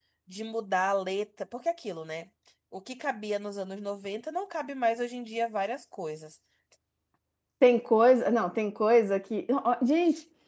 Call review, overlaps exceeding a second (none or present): none